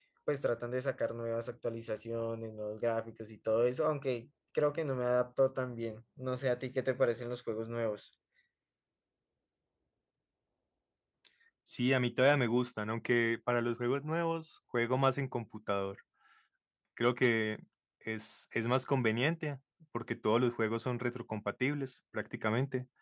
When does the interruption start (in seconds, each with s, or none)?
none